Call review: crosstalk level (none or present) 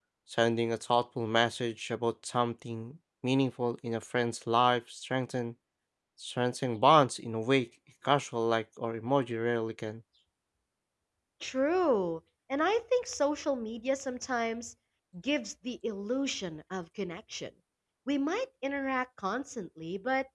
none